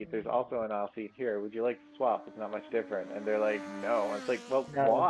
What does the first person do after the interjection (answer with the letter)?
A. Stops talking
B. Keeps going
B